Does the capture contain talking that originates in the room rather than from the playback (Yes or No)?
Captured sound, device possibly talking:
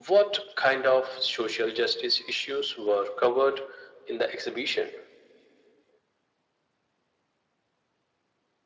No